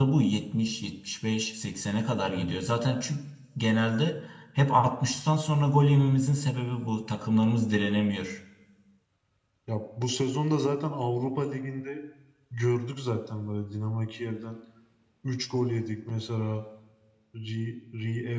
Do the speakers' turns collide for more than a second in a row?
No

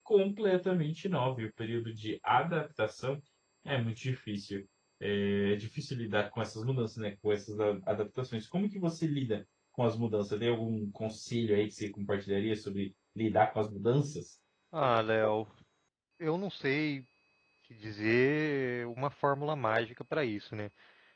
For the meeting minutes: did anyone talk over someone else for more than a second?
No

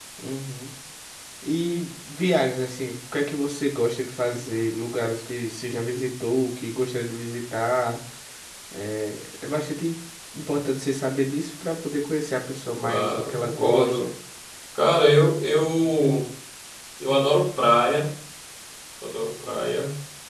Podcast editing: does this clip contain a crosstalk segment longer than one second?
Yes, from 12.8 s

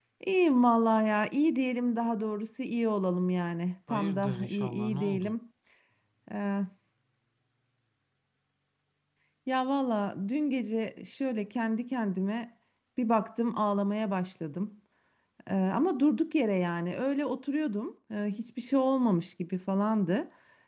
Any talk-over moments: Yes, from 3.9 s

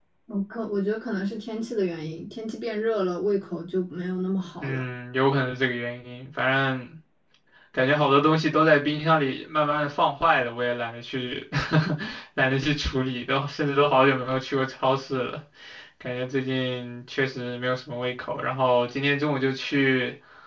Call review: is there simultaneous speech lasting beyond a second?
No

